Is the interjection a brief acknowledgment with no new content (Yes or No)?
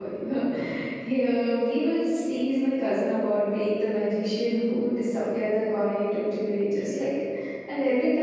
Yes